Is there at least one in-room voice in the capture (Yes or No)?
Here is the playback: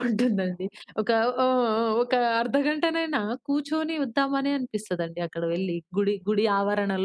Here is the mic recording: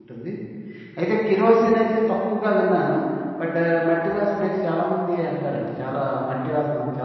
Yes